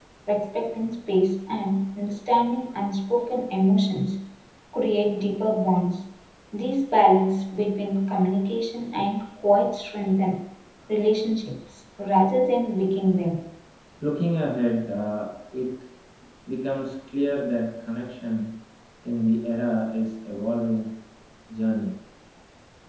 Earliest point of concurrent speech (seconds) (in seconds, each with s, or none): none